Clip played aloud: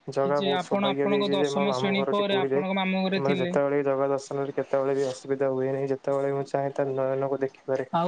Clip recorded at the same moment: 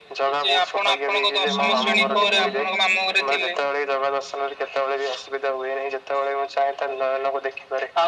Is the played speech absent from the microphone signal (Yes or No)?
No